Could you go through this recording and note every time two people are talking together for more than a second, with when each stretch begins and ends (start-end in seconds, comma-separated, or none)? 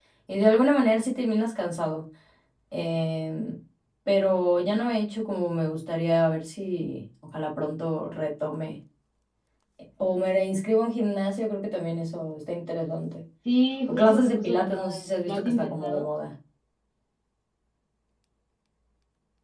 13.9-16.1